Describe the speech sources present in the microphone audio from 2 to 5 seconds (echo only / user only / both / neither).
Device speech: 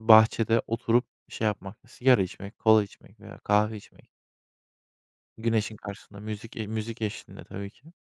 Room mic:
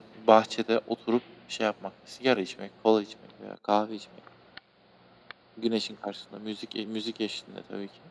echo only